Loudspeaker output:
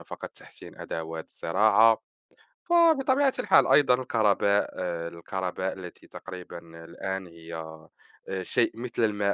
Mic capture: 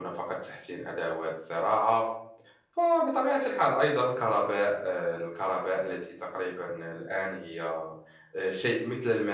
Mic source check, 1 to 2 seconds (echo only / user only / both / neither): echo only